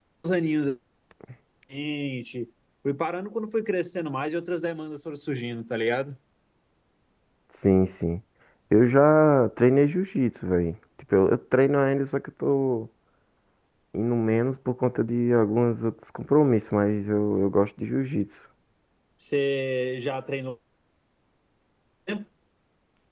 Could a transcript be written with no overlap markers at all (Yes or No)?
Yes